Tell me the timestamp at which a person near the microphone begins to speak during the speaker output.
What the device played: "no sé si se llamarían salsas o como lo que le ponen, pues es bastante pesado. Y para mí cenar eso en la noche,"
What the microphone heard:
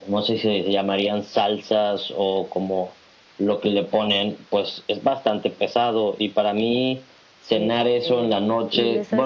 7.5 s

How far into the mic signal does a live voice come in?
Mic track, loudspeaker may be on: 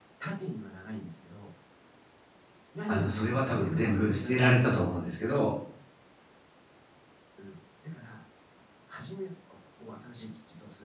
2.9 s

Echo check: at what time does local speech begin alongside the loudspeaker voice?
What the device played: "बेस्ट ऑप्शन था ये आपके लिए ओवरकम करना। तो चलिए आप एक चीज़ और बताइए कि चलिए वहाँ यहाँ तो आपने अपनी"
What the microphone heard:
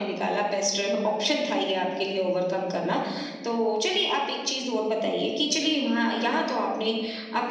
none

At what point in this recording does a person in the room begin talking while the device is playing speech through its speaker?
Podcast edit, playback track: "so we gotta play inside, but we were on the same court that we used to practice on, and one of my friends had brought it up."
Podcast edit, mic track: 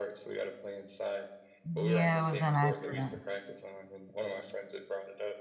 1.6 s

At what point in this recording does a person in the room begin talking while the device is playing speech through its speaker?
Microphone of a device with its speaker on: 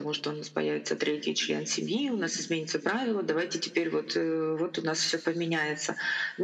none

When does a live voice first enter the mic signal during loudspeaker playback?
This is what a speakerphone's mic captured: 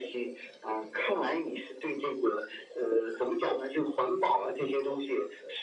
none

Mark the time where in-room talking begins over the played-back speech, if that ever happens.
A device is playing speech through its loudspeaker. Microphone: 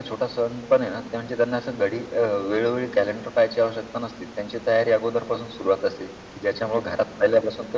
none

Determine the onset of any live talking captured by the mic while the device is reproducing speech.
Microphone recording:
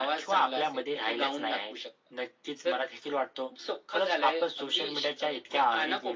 none

